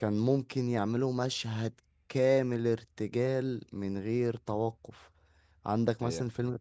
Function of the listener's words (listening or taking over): listening